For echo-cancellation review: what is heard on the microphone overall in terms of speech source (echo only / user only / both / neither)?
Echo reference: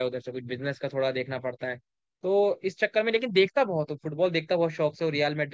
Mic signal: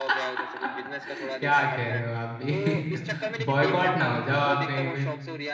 both